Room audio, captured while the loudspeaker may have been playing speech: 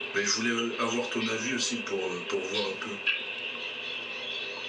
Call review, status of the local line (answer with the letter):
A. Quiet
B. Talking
A